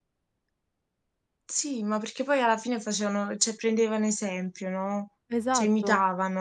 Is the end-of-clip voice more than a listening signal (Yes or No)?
Yes